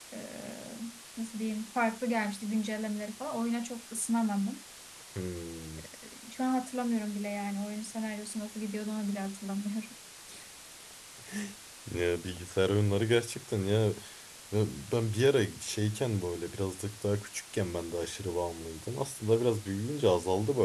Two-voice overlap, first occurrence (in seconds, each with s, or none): none